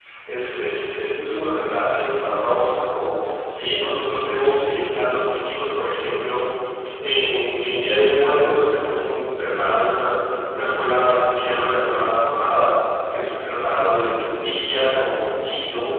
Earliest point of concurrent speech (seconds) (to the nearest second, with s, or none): none